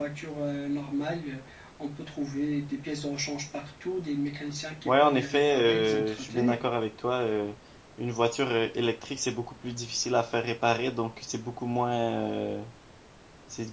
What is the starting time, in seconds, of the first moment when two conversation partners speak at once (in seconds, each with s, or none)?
4.8 s